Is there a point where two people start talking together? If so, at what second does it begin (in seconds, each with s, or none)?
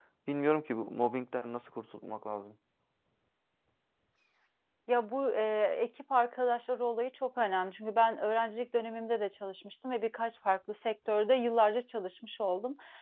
none